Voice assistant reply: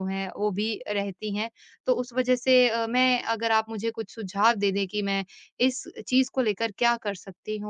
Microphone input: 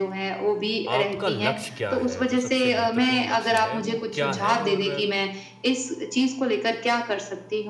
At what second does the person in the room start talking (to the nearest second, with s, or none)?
1 s